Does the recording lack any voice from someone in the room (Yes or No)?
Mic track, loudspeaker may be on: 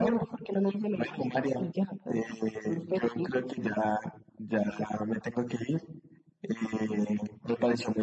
Yes